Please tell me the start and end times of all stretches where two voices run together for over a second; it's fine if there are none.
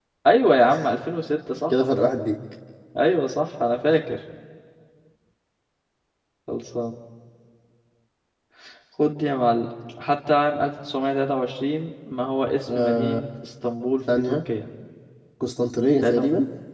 none

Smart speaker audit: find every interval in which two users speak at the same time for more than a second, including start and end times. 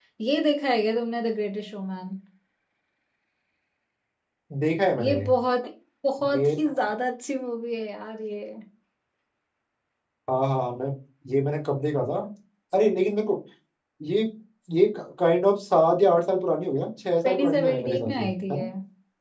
17.2-18.6

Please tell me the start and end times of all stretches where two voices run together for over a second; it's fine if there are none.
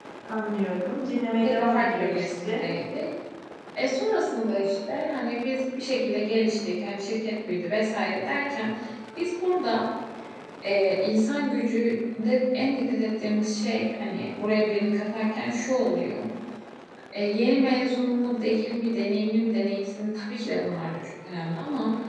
1.4-2.6

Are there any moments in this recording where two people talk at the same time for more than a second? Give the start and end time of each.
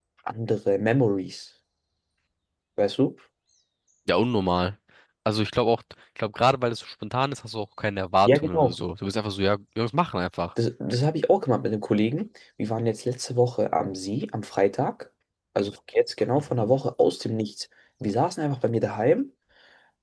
none

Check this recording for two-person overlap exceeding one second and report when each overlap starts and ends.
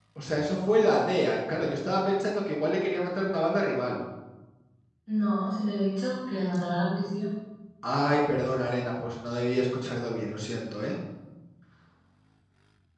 none

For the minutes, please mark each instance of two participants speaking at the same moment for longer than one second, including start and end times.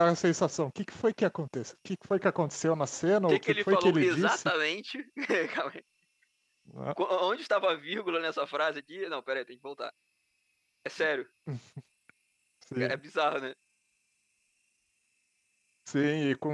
3.3-4.5

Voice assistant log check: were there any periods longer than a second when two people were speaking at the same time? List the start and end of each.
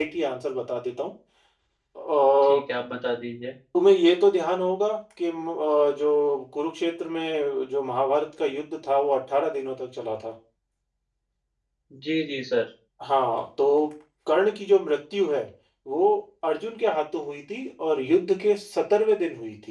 none

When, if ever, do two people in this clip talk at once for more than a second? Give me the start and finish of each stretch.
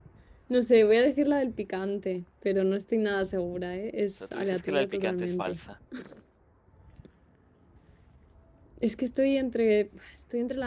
4.2-5.6

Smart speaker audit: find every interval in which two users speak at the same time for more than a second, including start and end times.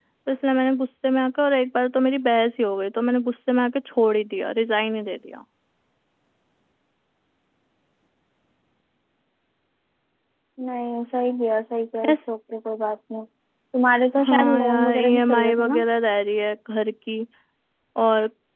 14.2-15.8

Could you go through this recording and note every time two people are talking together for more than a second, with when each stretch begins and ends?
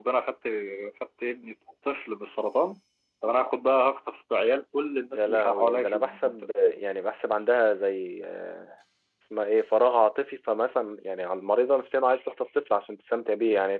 5.1-6.3

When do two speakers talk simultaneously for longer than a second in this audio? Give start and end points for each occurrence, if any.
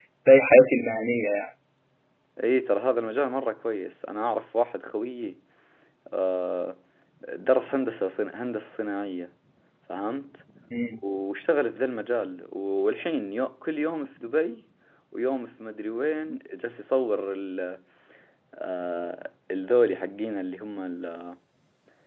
none

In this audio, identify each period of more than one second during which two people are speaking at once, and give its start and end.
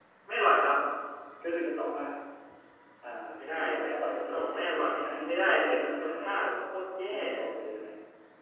4.3-6.3

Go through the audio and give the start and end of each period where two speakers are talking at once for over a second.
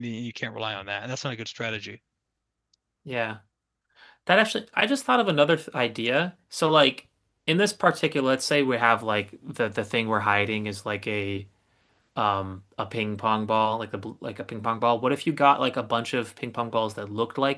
none

